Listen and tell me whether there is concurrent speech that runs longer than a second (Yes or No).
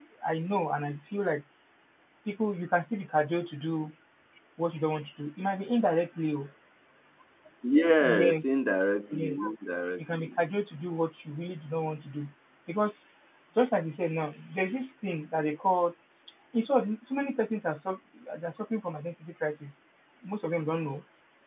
No